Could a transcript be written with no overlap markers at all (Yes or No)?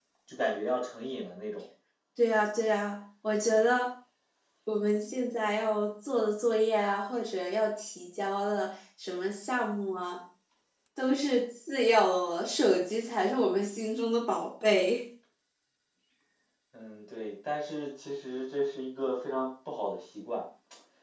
Yes